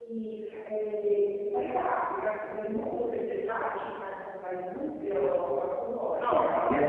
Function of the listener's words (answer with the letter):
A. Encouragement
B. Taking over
B